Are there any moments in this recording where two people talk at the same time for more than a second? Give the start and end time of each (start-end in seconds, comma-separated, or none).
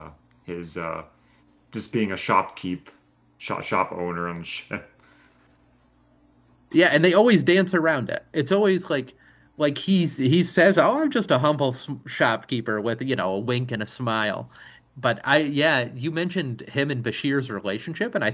none